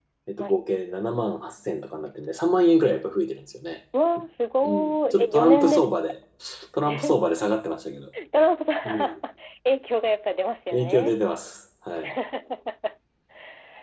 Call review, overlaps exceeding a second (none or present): present